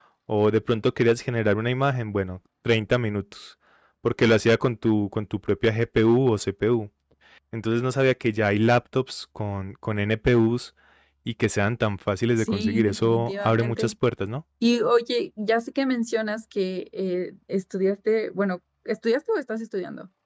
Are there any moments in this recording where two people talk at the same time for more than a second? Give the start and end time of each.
12.4-13.9

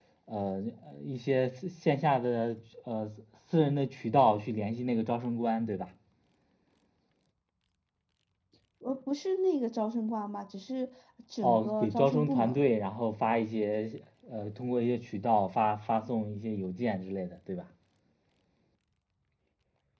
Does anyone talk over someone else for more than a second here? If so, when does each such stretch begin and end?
11.4-12.6

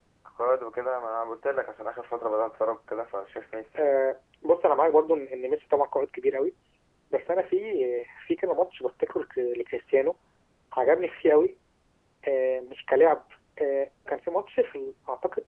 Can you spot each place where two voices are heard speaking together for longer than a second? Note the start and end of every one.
none

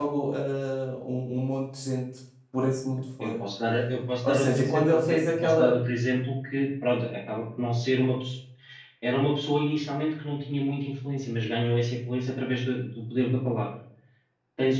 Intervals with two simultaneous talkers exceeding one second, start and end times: 4.2-5.7

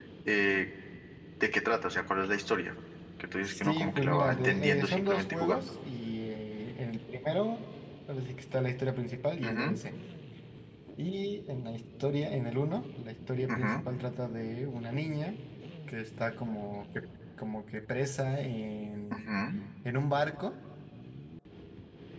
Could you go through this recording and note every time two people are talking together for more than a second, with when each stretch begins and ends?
3.4-5.7

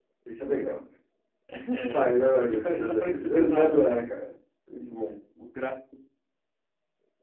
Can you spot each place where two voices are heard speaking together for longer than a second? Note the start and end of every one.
1.9-3.9

